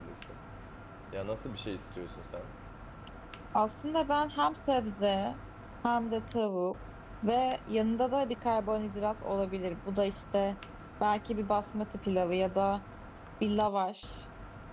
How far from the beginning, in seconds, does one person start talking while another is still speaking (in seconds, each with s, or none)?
none